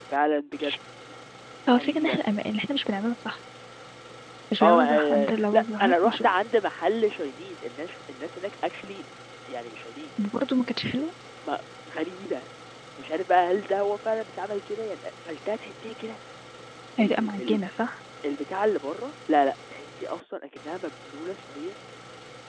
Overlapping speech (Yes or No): Yes